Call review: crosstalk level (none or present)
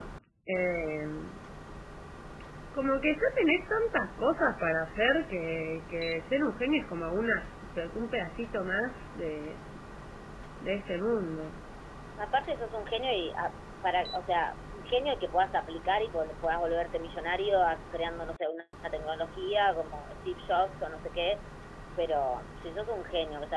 none